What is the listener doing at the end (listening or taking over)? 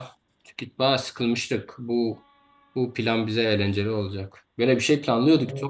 listening